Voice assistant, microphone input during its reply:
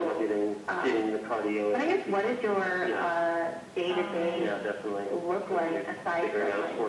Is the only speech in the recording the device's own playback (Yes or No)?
No